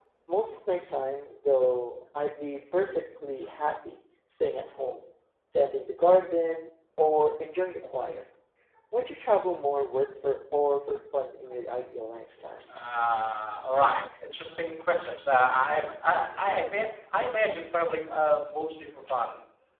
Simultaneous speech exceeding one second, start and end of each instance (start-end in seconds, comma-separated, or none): none